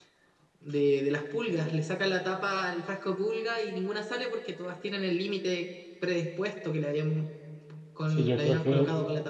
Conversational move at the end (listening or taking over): taking over